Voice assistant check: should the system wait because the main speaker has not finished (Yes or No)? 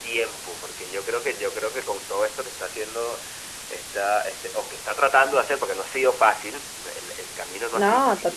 Yes